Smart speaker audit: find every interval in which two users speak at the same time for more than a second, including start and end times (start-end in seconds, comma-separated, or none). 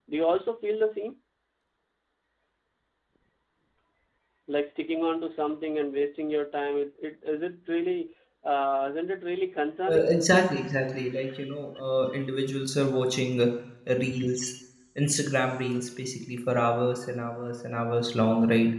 none